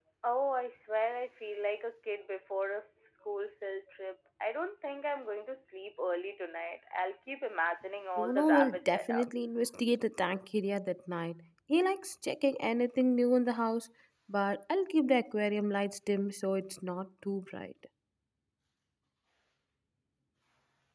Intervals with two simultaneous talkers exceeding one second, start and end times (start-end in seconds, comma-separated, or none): 8.2-9.5